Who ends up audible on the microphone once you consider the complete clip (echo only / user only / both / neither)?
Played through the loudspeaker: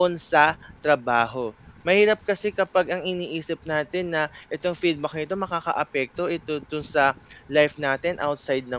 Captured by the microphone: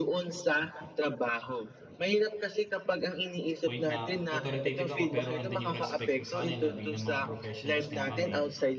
both